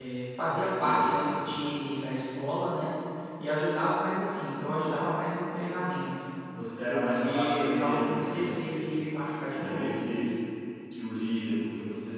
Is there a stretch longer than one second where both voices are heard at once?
Yes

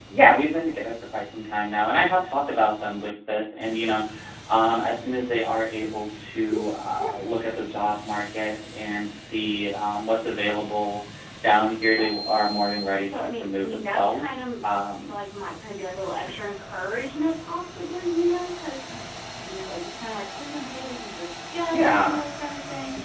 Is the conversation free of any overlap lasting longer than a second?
No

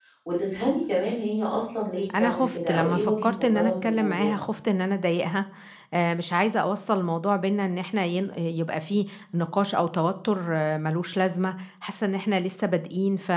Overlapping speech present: Yes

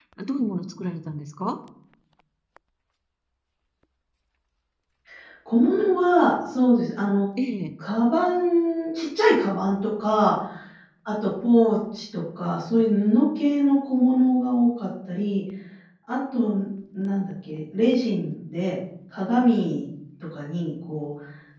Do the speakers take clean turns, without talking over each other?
Yes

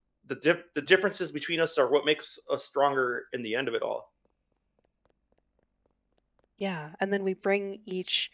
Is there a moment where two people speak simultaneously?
No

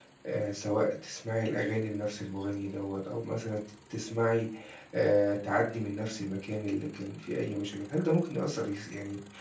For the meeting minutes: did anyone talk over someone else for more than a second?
No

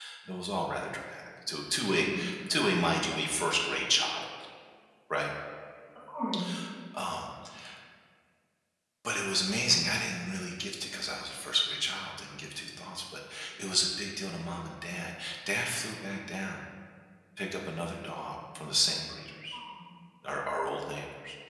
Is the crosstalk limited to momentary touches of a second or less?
Yes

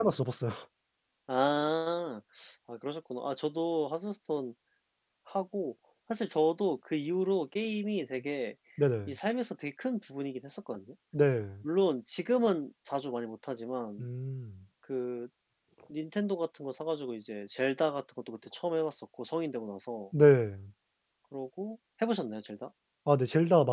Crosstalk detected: No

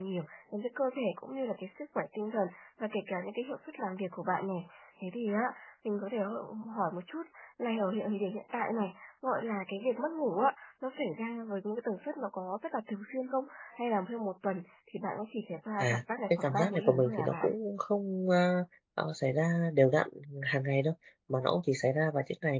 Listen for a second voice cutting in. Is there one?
Yes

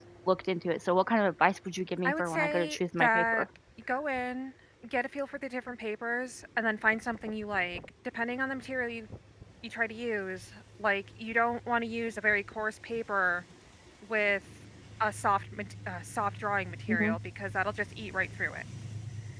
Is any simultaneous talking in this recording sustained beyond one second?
Yes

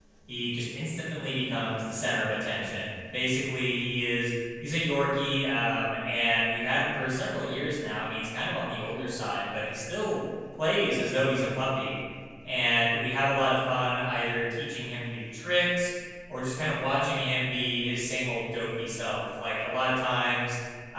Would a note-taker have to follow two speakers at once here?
No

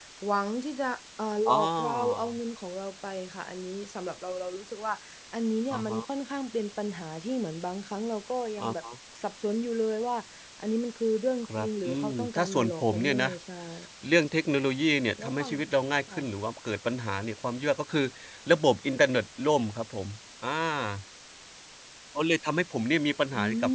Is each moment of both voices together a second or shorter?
No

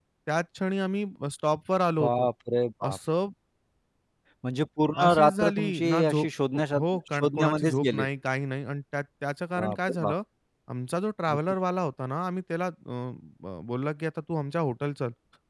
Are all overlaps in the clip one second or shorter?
No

